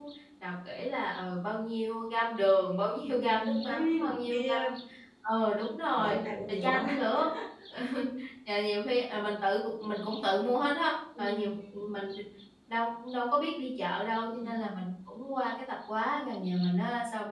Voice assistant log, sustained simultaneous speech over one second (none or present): present